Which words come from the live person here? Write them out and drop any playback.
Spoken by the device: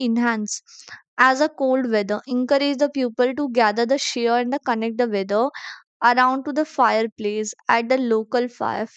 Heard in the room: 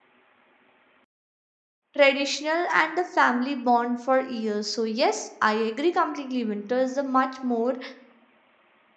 traditional, and the family bond for years. So, yes, I agree completely. Winter is the much more

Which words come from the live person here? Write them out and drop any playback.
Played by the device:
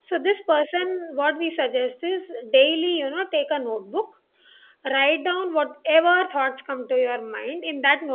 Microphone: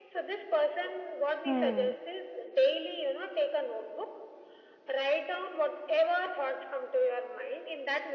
hmm

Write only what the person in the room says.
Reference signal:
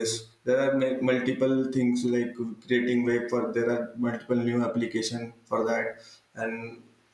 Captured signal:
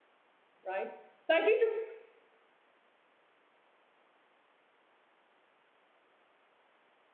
right? So I try to

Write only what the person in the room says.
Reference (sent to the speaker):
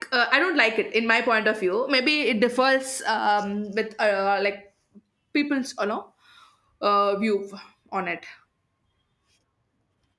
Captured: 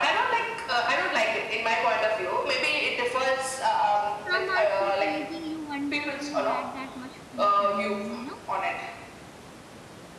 some are so crazy, you wonder who had that much free time, you know?

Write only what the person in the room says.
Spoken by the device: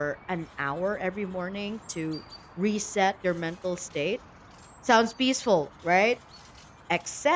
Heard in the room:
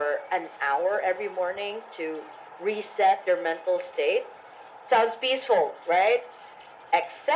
none

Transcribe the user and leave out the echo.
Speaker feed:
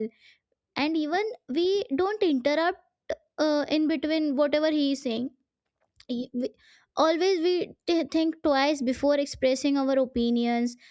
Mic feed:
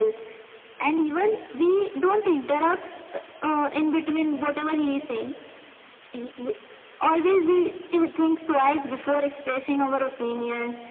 none

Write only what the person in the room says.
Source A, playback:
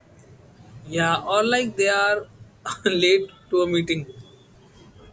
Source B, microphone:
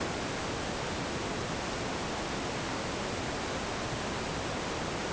none

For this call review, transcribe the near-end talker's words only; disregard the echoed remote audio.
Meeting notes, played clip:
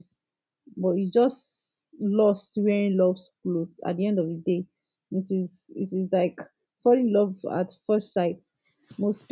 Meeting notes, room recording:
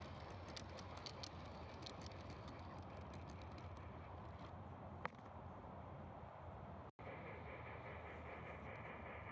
none

